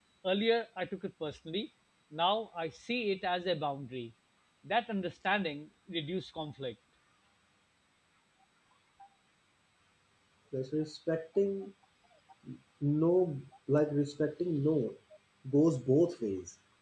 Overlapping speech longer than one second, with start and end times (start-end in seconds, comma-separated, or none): none